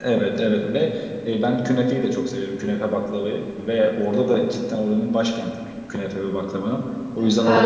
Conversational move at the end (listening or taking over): taking over